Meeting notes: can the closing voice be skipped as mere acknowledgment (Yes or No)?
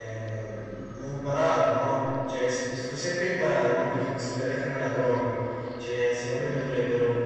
Yes